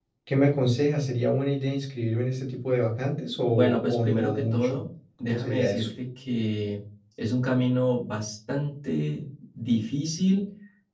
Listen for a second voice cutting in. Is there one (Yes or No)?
Yes